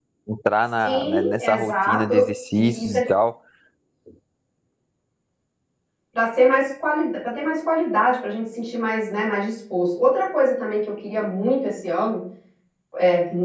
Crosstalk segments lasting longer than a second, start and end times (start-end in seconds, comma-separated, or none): 0.8-2.1